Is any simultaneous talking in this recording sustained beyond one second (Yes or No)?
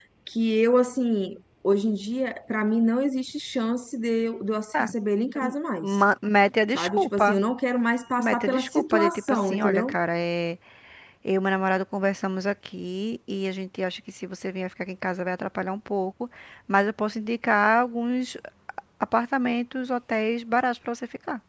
Yes